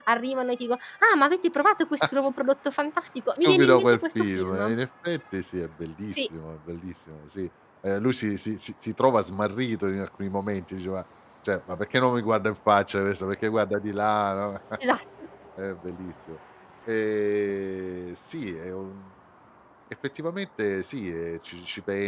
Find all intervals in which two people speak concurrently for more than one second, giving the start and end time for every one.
3.4-4.8

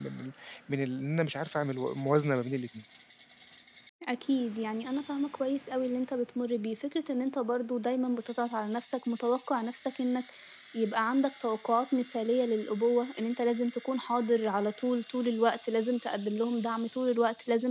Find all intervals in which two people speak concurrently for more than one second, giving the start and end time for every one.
none

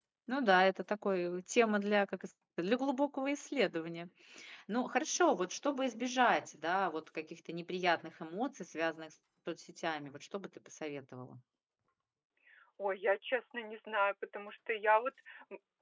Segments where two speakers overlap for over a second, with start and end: none

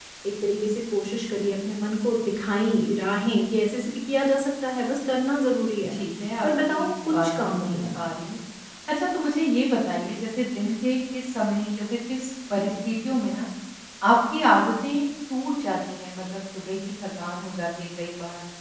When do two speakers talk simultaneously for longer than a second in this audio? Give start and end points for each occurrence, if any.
6.4-8.1

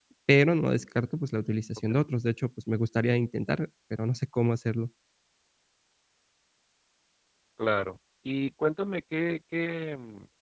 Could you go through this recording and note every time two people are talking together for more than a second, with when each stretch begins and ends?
none

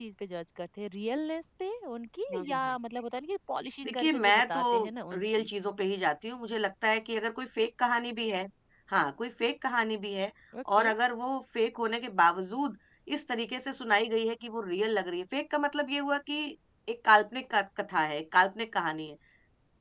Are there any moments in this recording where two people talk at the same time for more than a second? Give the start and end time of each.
3.8-5.5

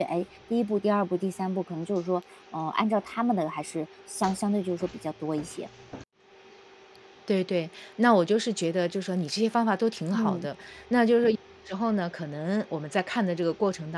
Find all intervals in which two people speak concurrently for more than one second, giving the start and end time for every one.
none

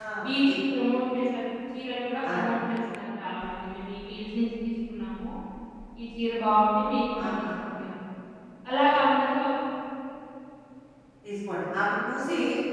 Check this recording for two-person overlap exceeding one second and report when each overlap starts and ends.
none

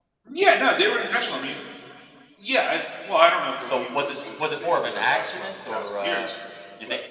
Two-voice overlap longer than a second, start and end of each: 3.7-6.3

